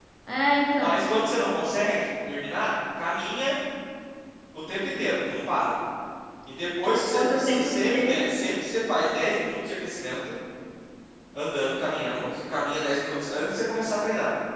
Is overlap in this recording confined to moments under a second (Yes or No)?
No